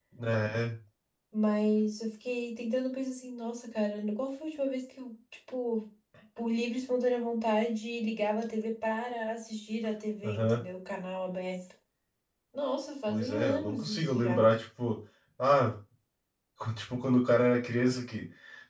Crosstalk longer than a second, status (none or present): present